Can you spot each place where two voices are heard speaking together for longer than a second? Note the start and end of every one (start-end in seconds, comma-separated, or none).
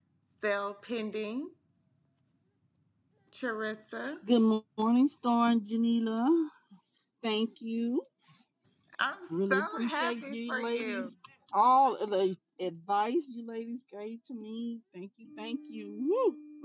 9.3-11.1